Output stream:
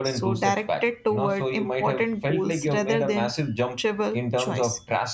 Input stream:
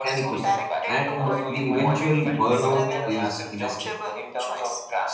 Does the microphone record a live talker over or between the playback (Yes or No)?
Yes